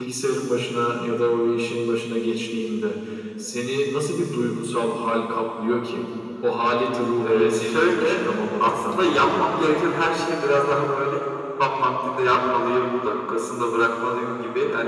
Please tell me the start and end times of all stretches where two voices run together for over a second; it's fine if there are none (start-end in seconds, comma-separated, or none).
7.2-9.6